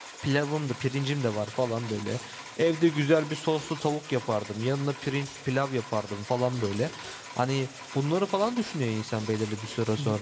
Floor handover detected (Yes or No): No